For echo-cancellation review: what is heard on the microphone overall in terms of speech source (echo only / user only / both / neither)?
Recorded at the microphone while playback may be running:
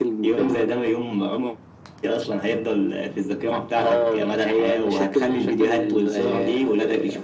echo only